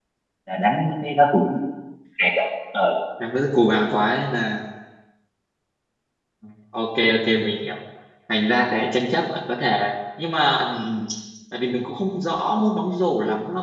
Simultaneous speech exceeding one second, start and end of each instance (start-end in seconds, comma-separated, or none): none